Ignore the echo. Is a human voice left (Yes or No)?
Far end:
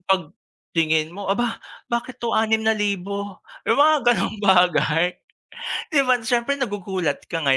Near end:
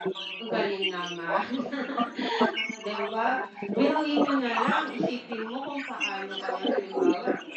Yes